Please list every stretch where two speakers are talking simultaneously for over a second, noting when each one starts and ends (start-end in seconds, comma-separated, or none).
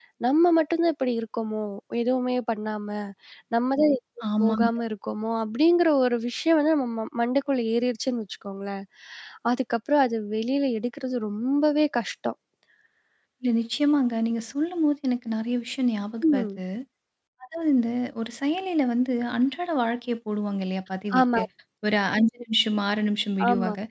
none